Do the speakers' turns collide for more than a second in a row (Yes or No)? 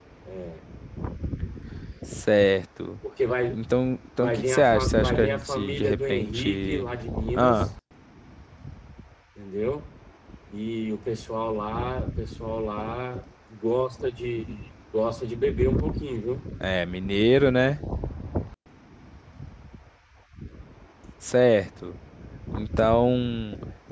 Yes